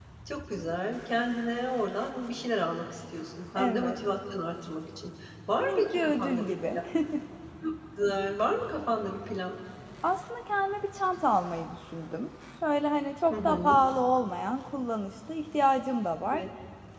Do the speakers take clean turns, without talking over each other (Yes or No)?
No